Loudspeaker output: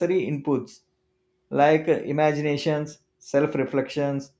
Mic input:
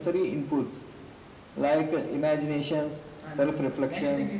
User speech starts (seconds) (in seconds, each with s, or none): 3.2 s